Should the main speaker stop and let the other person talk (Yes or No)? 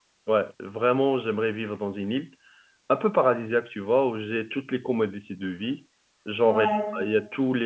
No